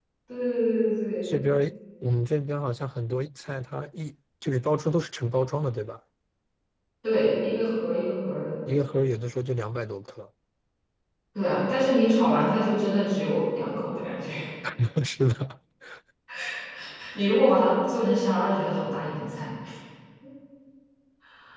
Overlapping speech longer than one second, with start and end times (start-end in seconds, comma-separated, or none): none